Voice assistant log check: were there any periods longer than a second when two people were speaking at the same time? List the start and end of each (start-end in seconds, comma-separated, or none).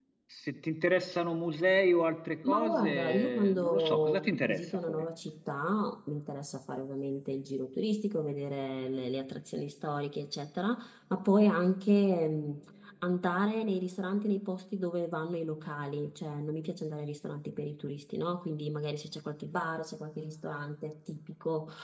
2.5-5.0